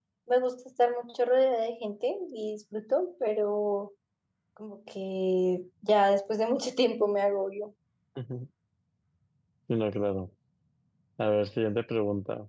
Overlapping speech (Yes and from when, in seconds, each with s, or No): No